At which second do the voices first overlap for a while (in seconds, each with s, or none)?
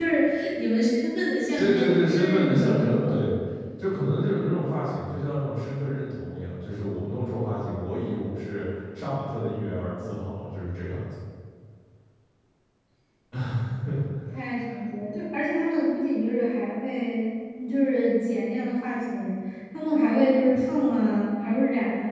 1.6 s